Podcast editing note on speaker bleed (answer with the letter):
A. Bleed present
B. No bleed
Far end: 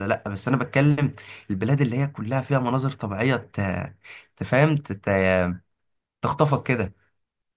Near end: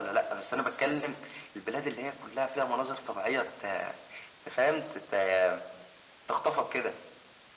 A